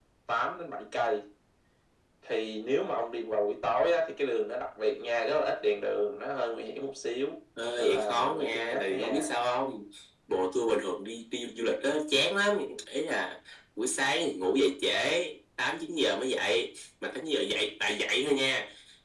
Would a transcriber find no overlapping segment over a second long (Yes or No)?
No